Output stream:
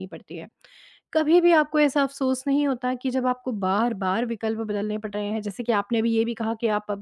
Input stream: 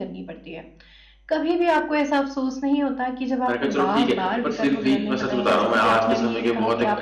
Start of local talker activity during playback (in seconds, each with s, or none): 3.5 s